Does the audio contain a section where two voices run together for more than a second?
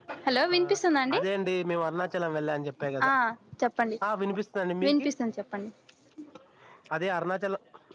No

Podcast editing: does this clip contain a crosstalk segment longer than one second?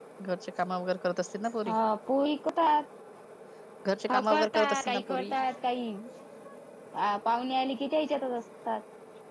Yes, from 4.1 s

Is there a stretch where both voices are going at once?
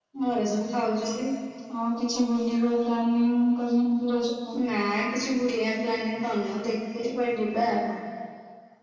No

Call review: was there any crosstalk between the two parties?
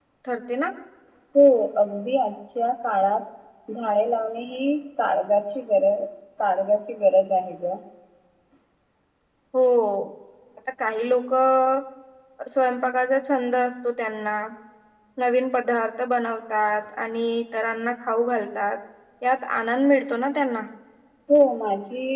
No

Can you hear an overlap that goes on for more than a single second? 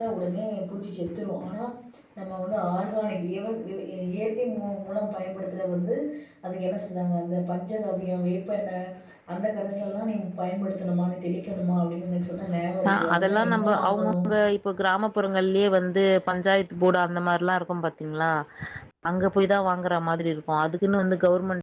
Yes, from 12.8 s

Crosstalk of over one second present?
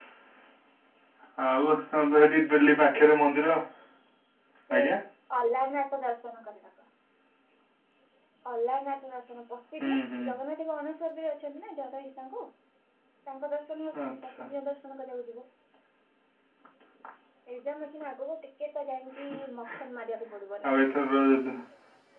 No

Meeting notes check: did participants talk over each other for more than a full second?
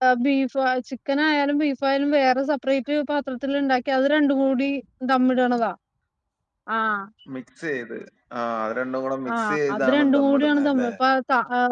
Yes, from 9.3 s

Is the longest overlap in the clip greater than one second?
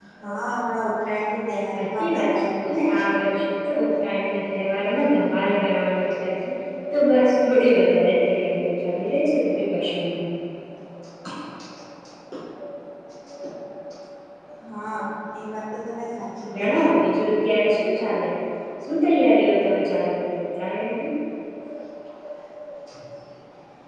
Yes, from 1.7 s

